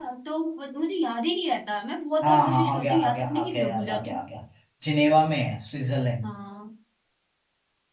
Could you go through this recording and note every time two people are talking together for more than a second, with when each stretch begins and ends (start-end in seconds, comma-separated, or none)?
2.2-4.2